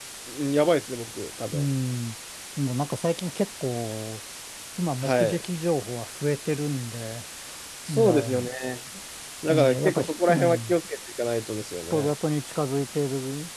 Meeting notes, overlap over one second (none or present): present